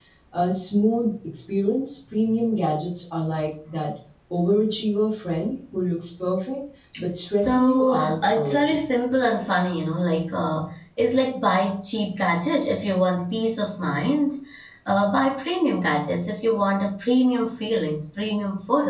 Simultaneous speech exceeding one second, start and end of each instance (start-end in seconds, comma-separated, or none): 7.3-8.8